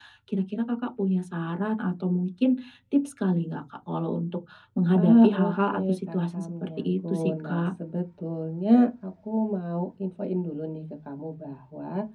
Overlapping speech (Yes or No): Yes